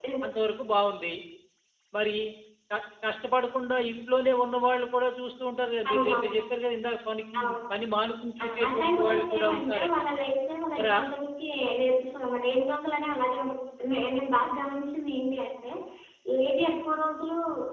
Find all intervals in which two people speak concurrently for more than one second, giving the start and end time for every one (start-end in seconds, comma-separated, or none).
8.4-10.0